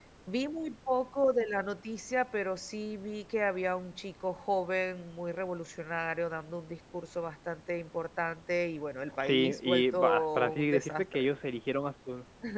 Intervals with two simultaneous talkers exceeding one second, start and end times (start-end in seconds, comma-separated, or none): 9.2-11.3